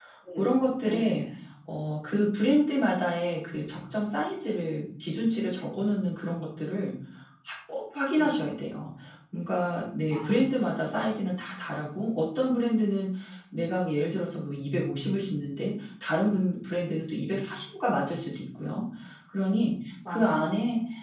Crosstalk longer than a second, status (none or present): none